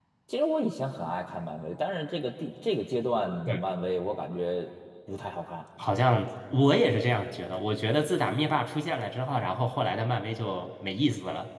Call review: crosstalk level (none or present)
none